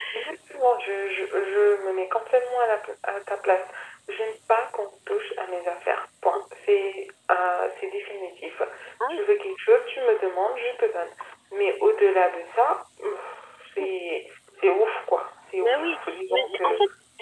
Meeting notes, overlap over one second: present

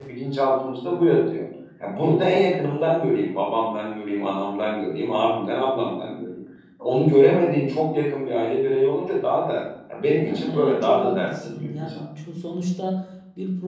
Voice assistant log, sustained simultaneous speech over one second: present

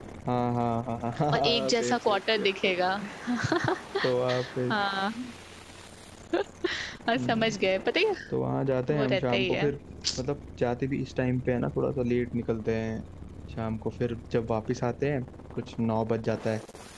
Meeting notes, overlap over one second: present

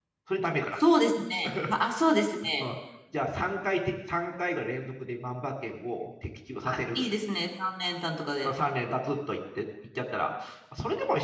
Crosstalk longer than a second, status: none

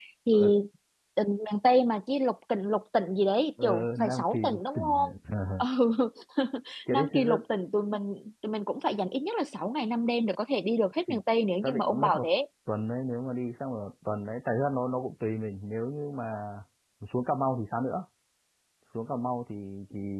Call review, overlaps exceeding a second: present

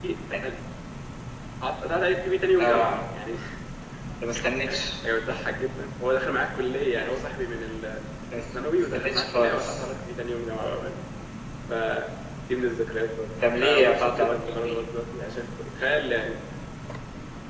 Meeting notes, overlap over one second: present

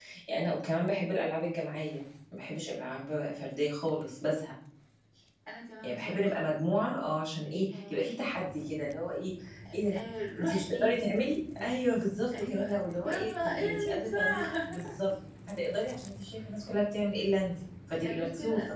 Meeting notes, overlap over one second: present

